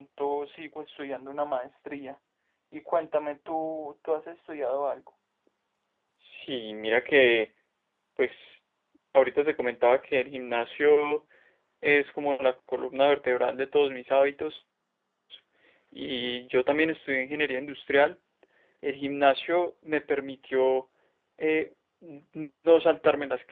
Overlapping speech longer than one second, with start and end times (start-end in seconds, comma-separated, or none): none